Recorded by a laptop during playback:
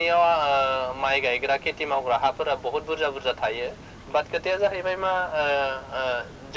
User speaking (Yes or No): No